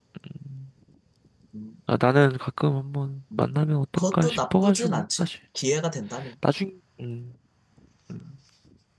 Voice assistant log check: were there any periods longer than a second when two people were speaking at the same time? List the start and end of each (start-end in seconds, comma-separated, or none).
4.0-5.3